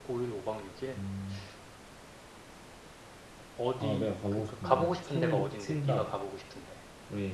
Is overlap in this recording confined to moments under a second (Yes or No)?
No